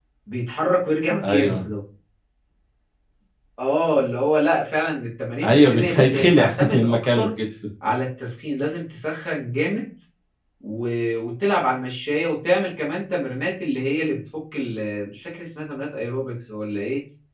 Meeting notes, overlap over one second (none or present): present